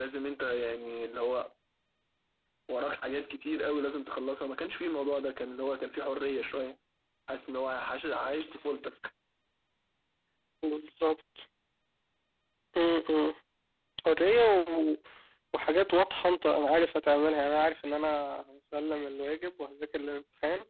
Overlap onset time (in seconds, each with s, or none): none